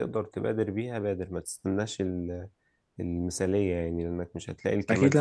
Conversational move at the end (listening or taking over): taking over